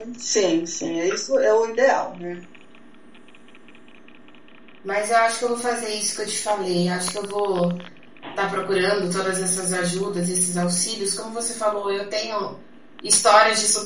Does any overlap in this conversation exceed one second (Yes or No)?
No